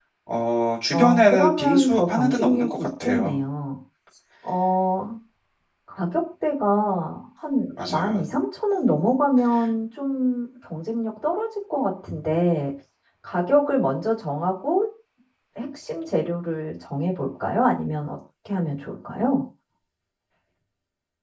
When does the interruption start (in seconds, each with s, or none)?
0.9 s